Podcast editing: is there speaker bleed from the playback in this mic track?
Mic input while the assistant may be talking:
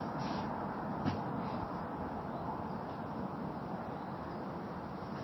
No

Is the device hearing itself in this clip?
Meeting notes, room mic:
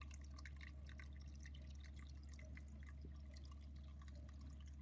No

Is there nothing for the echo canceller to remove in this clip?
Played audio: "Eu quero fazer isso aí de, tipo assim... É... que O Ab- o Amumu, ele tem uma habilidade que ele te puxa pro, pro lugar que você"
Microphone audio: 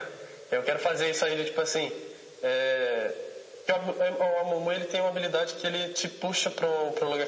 No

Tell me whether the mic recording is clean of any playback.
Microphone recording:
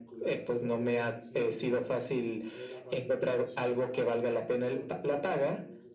No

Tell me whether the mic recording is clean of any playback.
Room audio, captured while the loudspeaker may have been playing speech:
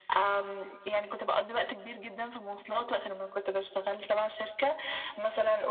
No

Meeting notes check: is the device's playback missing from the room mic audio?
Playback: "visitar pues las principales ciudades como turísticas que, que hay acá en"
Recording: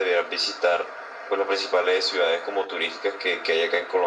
No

